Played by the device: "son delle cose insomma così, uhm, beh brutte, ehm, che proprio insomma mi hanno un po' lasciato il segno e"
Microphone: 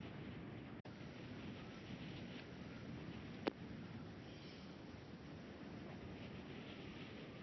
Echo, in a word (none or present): none